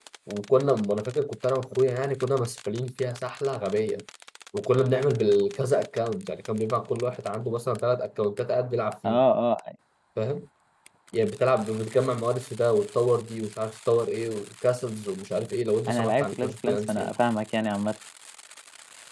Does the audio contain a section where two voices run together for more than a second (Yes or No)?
Yes